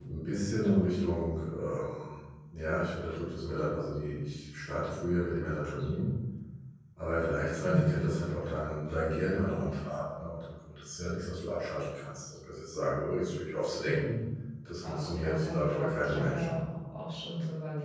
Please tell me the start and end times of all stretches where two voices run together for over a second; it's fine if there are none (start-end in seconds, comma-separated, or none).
14.8-16.6